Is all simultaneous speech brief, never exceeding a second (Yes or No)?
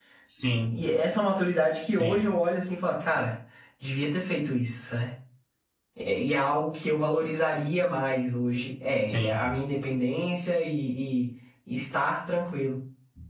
Yes